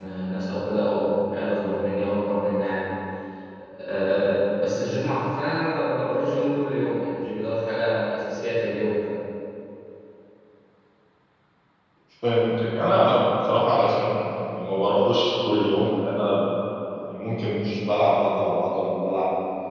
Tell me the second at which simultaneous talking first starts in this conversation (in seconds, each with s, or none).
none